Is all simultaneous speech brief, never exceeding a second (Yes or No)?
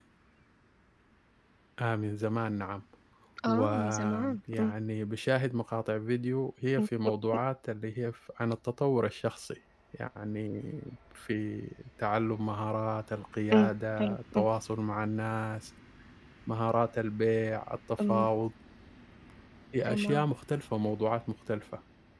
No